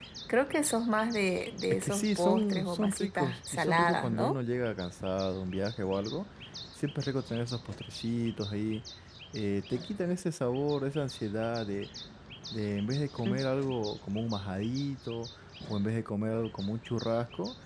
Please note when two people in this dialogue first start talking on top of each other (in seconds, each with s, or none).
1.7 s